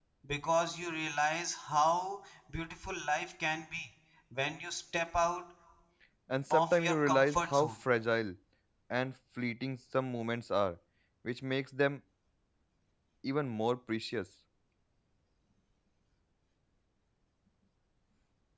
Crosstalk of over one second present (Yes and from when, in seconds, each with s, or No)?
Yes, from 6.5 s